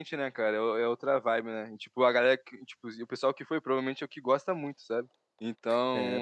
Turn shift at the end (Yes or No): No